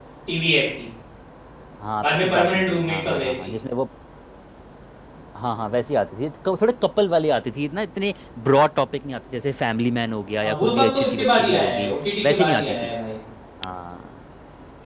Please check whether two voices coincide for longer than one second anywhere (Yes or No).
Yes